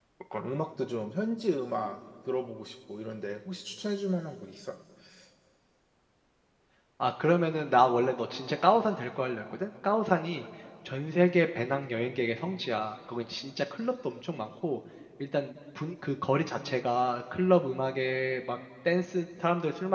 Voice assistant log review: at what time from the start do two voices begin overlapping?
none

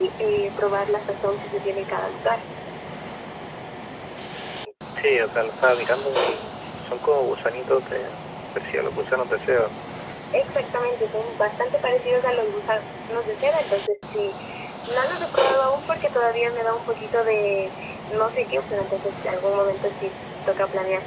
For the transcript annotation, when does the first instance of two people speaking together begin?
none

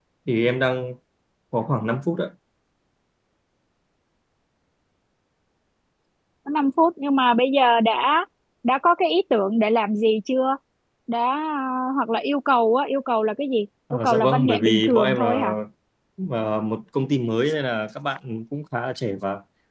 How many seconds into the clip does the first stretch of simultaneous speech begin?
13.9 s

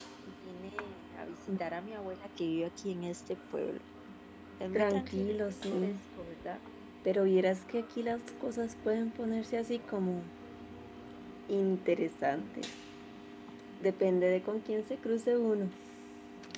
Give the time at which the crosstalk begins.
4.7 s

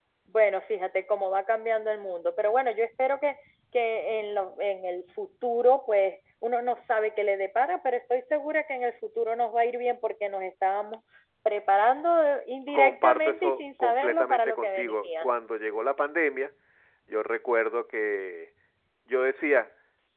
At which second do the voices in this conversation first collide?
12.7 s

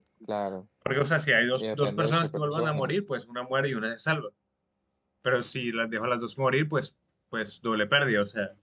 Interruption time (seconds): 1.5 s

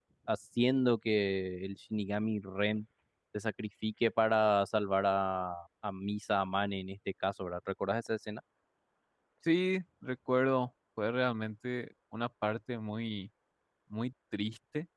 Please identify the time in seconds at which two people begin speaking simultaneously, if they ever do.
none

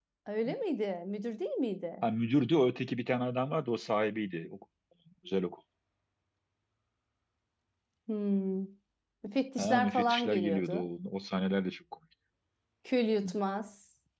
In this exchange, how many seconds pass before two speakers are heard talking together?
9.6 s

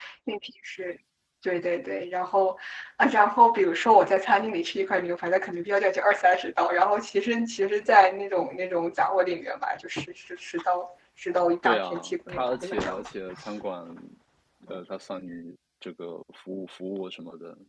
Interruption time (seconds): 11.6 s

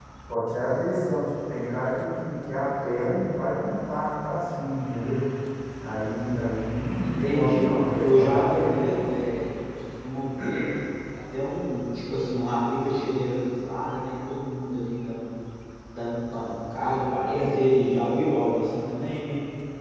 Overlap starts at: 7.0 s

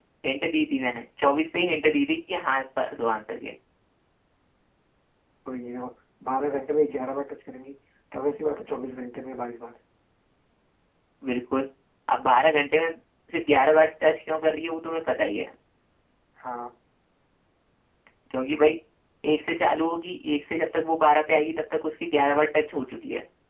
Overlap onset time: none

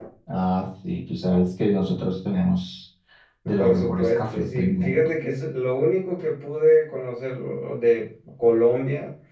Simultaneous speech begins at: 3.6 s

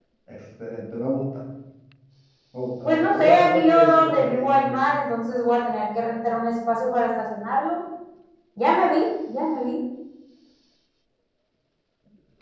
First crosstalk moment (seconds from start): 2.9 s

